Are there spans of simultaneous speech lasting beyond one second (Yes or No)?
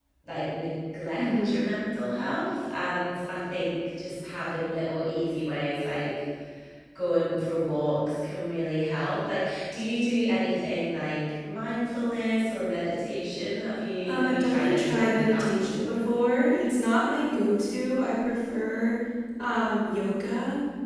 Yes